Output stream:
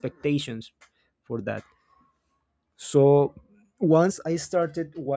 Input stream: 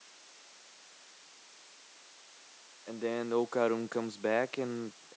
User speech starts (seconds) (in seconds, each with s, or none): 2.8 s